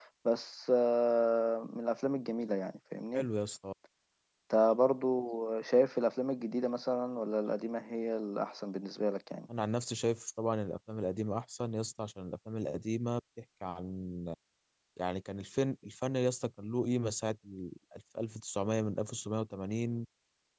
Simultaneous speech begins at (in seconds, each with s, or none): none